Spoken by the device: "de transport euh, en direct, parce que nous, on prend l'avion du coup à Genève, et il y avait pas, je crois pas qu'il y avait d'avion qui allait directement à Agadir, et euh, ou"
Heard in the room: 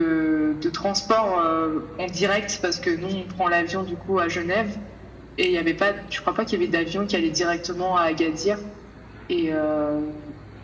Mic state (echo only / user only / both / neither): echo only